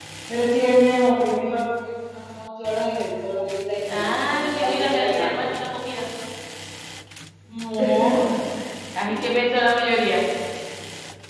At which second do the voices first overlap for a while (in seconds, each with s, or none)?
3.9 s